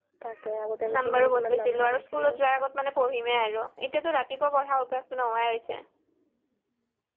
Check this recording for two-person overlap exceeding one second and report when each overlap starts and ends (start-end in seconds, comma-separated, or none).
0.9-2.3